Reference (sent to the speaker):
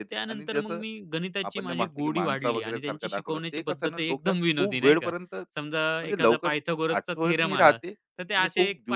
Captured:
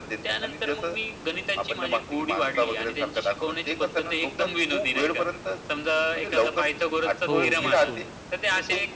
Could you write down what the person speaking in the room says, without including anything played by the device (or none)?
हो, बिलकुल.